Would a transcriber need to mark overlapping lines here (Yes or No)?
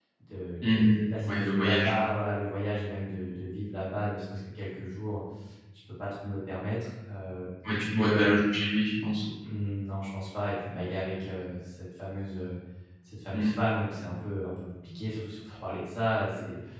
Yes